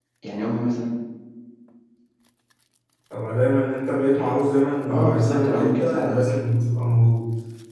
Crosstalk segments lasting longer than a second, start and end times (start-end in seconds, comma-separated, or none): 4.9-6.1